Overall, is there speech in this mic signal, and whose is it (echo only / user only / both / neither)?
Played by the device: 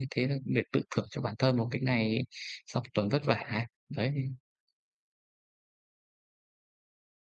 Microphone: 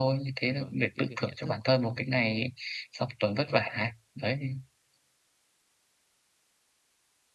both